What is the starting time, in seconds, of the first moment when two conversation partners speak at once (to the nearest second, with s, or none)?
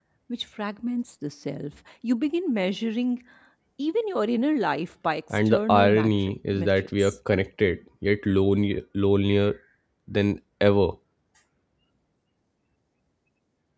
5 s